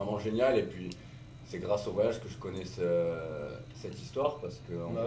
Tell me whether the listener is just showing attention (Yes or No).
Yes